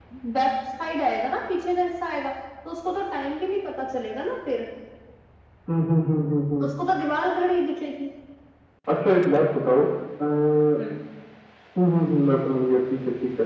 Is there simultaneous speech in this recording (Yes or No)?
No